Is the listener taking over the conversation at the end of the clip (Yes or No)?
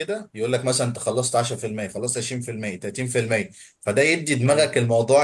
No